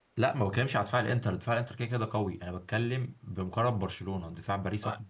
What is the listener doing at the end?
taking over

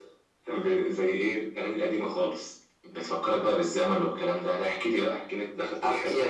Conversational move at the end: taking over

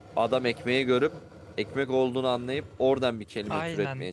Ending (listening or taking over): taking over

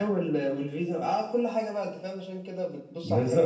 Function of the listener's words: taking over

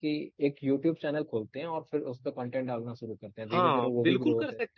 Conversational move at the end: taking over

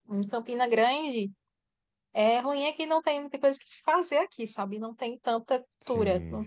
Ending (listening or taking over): listening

